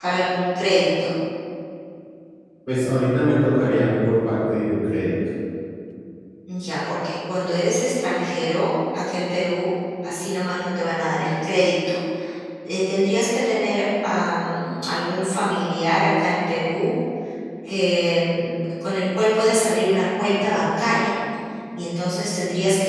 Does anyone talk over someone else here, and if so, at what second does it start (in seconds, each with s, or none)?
none